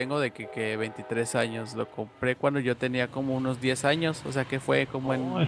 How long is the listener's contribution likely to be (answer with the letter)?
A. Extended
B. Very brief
B